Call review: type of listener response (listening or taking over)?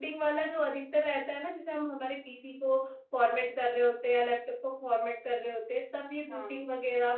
listening